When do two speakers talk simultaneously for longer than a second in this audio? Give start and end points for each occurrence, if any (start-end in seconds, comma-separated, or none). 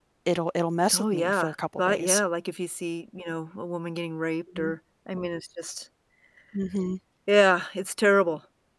0.9-2.2